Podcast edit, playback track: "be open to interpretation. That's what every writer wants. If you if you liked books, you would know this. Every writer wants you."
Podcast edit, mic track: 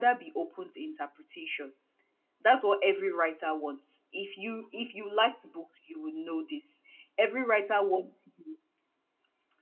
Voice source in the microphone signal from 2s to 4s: echo only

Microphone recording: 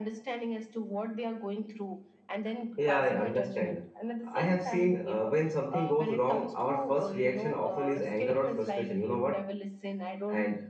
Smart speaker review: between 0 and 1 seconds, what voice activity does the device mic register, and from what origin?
echo only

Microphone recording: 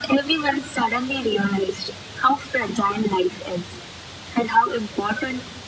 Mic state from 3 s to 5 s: echo only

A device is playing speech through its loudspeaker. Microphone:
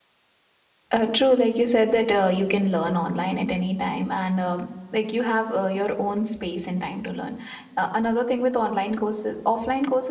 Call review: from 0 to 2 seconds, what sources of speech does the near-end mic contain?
user only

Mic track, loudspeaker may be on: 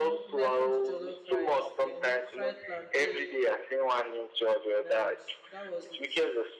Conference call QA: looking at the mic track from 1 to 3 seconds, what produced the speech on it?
both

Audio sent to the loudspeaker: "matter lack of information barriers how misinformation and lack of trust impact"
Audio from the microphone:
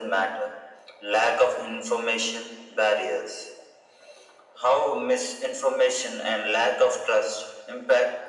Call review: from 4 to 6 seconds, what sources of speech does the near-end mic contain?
echo only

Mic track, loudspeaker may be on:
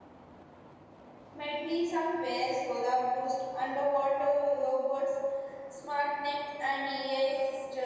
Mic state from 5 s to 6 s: user only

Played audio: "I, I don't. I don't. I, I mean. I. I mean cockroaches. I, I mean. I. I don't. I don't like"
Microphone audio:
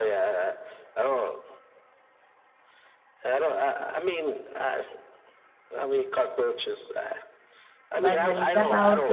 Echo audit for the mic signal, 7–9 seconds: both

